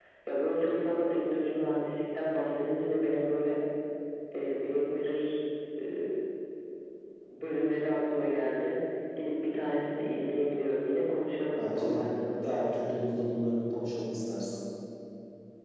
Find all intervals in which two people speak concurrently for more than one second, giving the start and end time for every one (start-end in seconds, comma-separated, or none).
11.6-12.9